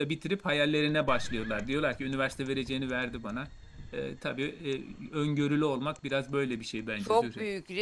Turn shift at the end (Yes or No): Yes